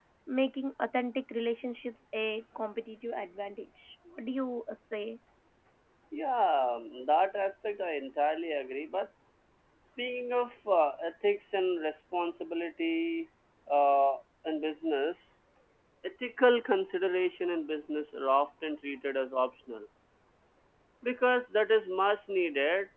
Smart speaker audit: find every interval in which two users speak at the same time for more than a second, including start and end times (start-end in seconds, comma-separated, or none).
none